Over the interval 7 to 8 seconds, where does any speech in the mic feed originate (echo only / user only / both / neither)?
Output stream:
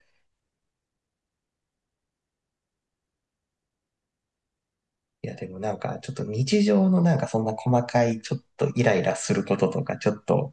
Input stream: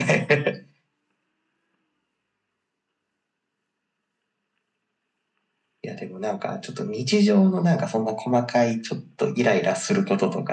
echo only